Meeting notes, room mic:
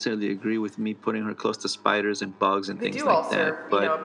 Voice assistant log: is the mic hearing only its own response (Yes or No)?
No